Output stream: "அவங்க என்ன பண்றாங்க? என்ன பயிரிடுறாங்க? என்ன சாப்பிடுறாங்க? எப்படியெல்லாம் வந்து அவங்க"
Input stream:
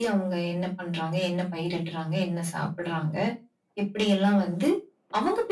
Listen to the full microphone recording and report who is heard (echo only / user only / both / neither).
echo only